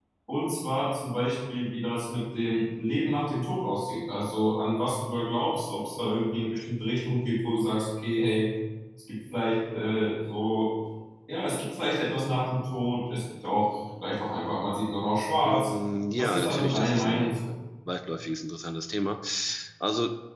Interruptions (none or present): present